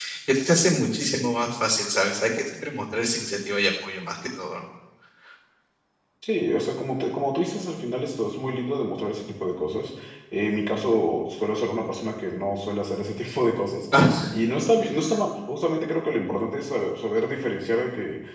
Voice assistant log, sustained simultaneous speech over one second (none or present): none